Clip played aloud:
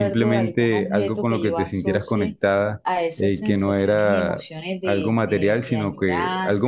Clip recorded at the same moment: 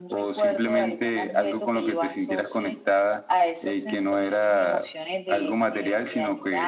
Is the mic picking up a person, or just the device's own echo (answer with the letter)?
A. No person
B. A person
A